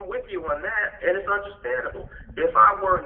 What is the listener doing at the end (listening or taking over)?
listening